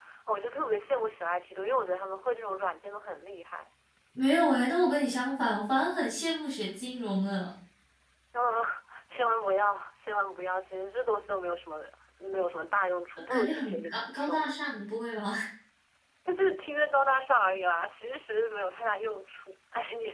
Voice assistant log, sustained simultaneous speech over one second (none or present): present